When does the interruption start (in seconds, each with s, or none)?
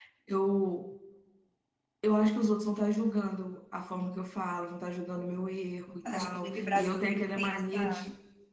5.9 s